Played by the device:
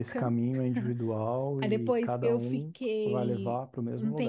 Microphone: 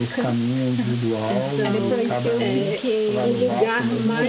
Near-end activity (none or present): present